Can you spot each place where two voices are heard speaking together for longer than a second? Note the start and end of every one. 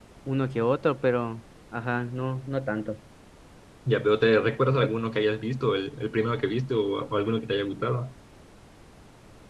none

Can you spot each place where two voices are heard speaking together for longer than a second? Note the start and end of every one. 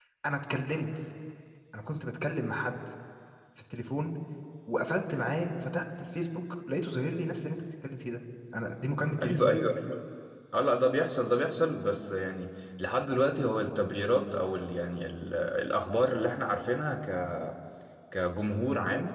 none

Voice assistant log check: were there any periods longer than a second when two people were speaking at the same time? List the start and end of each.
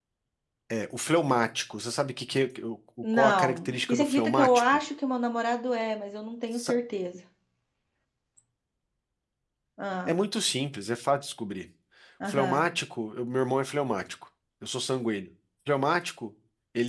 3.1-4.8

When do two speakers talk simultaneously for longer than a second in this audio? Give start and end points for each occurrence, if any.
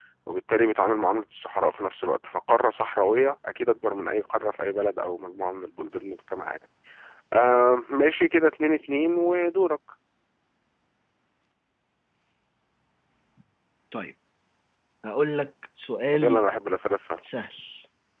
none

